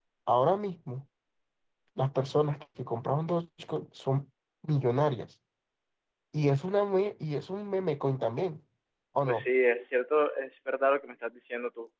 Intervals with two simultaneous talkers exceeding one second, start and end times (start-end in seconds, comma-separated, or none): none